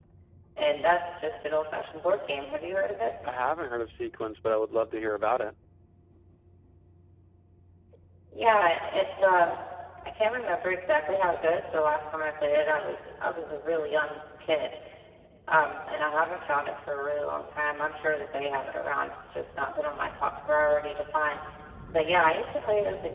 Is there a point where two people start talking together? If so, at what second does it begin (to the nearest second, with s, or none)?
none